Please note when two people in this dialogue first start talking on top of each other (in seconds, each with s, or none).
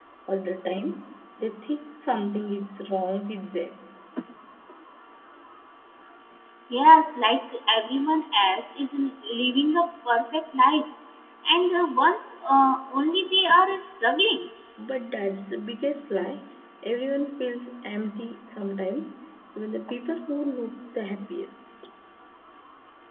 none